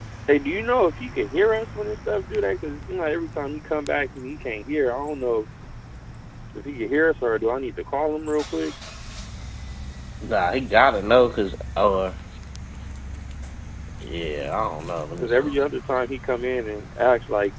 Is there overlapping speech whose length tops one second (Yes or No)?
No